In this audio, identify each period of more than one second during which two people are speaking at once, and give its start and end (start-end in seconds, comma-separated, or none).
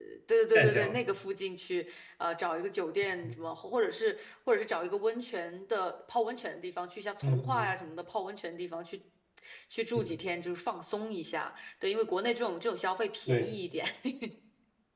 none